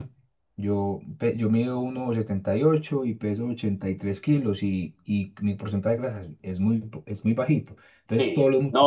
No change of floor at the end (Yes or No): No